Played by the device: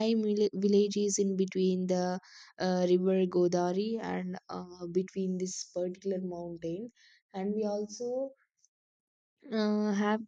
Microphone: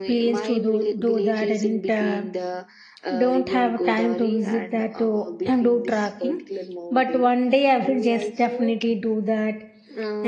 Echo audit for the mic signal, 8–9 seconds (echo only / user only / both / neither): both